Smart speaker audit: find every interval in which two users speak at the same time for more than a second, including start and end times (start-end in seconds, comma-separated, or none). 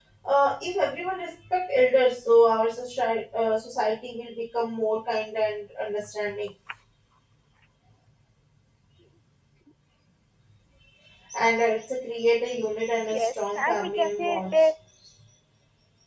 13.1-14.5